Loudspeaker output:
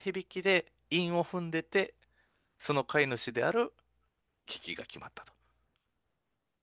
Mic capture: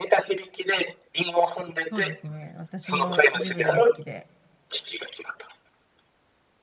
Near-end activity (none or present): present